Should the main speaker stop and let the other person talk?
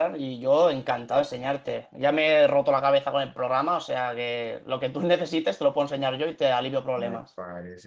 Yes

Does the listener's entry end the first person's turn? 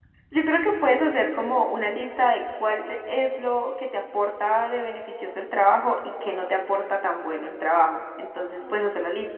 No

